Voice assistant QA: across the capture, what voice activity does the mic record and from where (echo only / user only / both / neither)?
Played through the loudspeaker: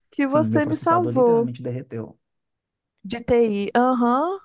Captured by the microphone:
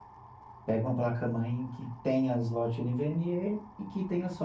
user only